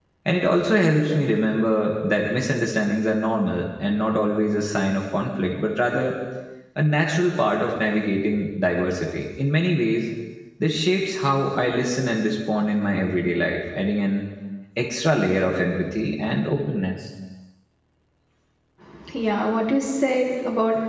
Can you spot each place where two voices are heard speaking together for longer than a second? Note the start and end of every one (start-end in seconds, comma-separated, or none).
none